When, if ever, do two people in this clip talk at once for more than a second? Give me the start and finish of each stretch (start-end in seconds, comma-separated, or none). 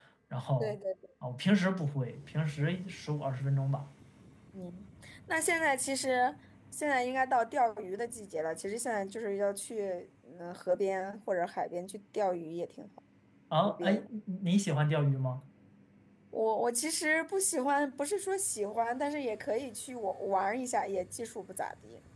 none